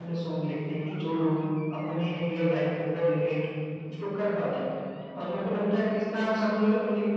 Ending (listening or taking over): listening